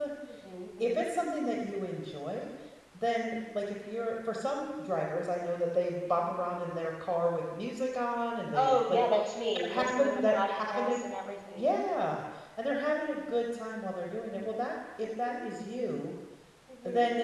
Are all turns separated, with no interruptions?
No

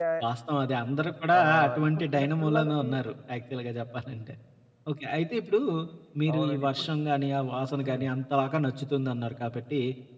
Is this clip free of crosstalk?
No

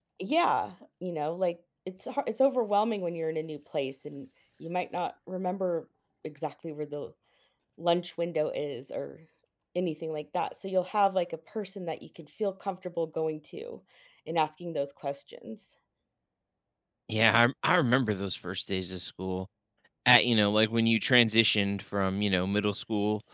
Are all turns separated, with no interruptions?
Yes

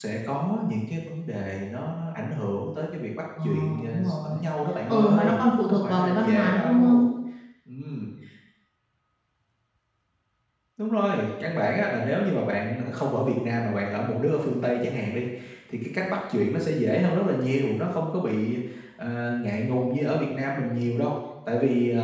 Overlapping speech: Yes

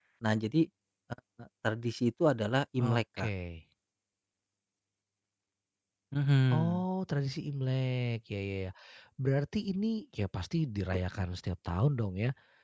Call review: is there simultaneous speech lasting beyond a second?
No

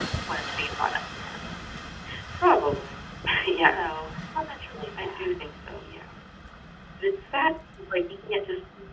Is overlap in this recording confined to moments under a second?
Yes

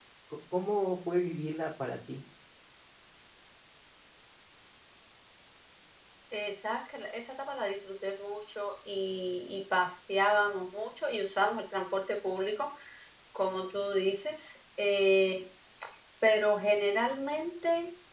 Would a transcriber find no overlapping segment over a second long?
Yes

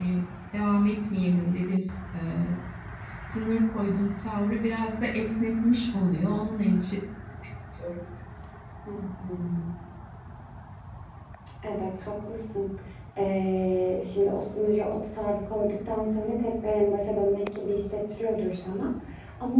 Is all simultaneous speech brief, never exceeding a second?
Yes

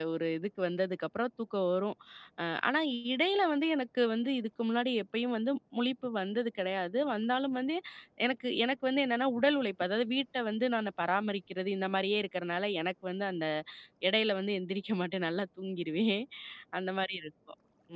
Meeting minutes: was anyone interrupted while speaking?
No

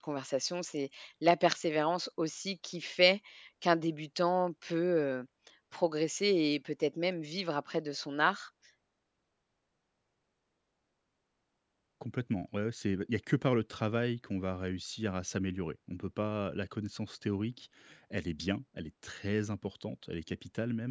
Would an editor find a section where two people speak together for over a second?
No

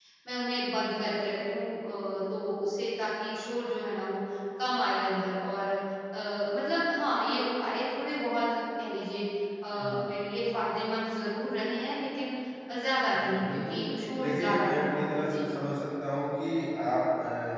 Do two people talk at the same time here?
Yes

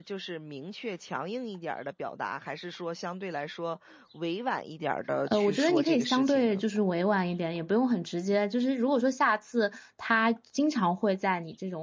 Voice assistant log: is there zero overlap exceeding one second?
No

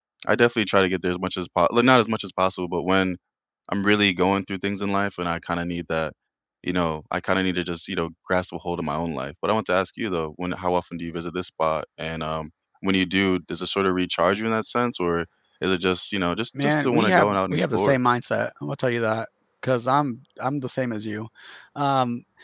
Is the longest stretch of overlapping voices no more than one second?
No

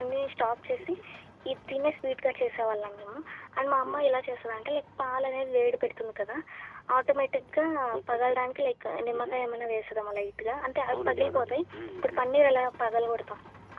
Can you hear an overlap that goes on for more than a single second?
Yes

